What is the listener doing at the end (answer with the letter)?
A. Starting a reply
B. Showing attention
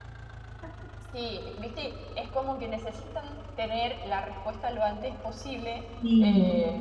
B